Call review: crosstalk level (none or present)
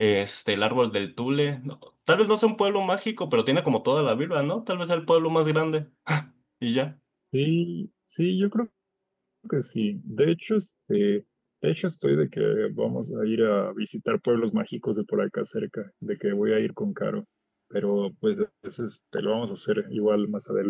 none